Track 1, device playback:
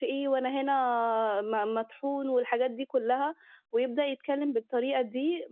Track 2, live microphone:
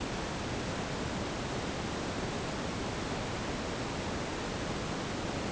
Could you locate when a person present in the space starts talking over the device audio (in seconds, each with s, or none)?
none